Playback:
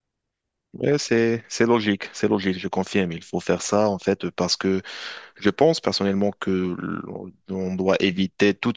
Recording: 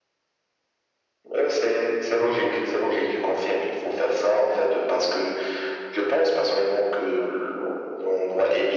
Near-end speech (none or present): none